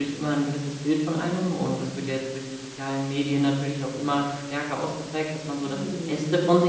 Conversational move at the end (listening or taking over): listening